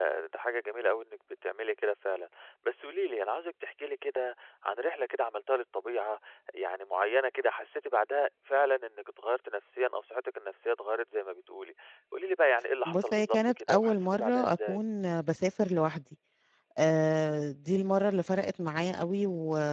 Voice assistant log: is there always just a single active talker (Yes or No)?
No